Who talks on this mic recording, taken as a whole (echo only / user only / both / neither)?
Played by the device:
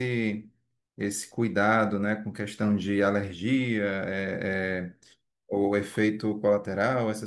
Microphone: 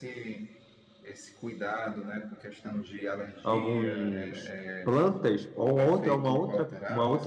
both